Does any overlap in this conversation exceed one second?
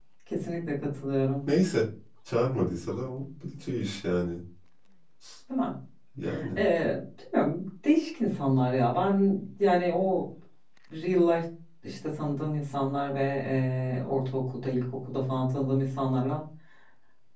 No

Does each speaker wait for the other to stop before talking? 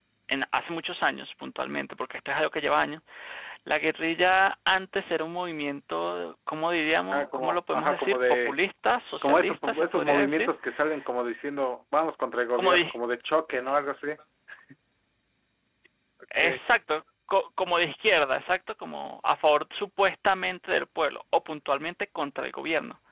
No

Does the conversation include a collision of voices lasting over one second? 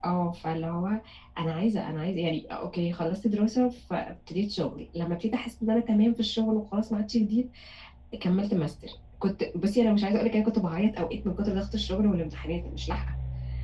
No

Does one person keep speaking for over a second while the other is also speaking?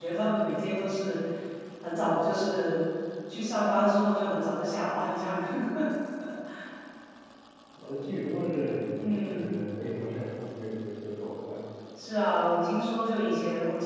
No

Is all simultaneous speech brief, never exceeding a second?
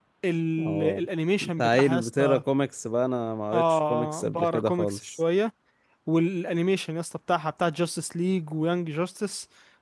No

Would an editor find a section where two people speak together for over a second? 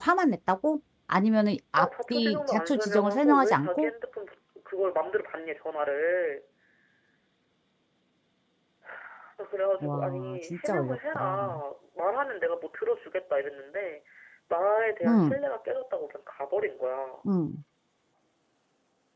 Yes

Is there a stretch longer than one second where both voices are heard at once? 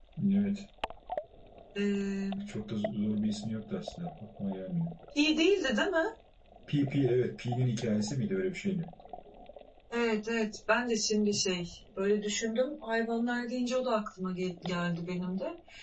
No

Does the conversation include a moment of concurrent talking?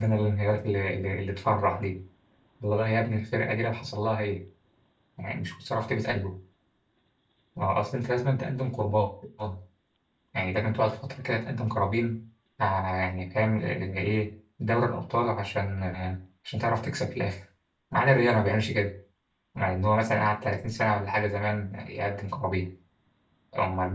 No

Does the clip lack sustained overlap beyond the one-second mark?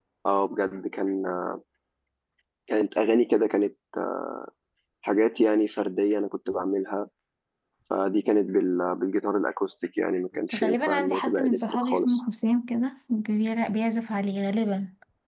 No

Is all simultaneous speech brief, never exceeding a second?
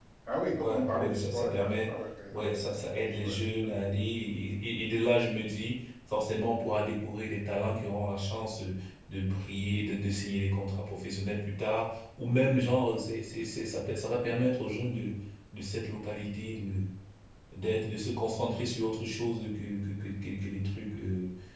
No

